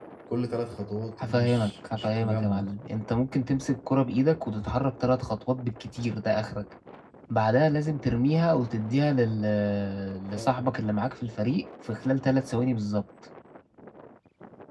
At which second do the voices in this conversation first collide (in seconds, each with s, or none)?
1.2 s